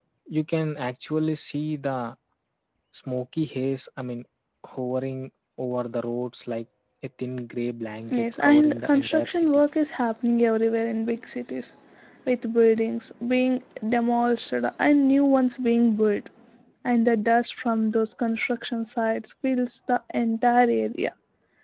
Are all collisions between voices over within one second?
No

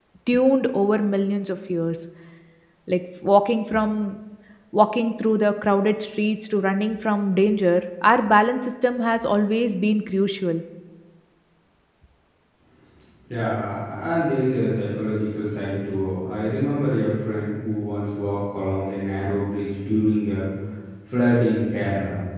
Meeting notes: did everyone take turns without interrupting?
Yes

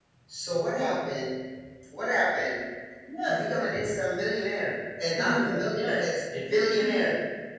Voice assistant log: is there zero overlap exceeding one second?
No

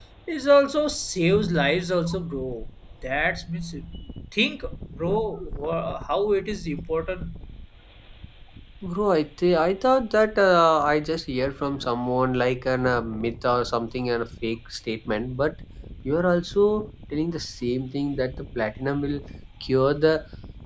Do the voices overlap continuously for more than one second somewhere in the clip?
No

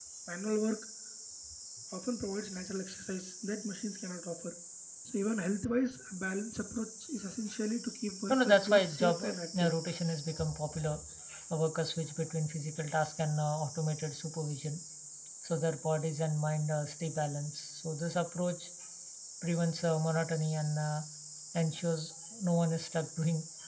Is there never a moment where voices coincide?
No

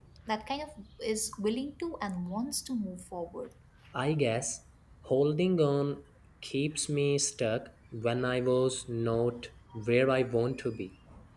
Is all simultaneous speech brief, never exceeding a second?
Yes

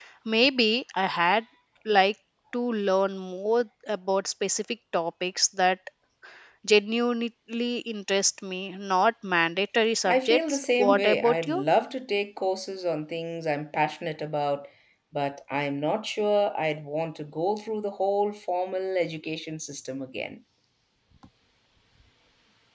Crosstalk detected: Yes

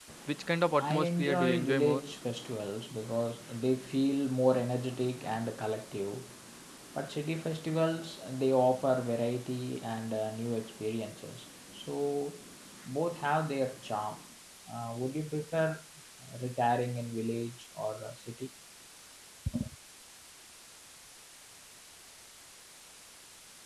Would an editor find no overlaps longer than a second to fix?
No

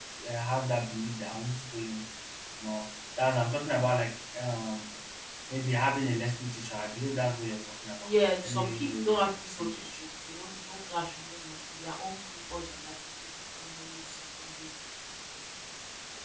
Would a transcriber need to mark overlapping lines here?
Yes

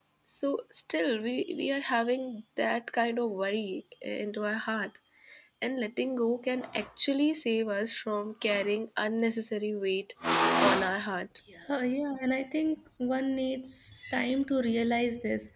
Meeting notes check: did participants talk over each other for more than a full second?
No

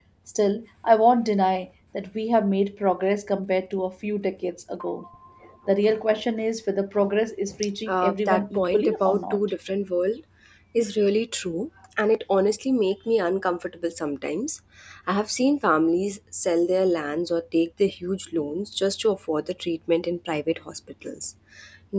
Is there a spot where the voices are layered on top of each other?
Yes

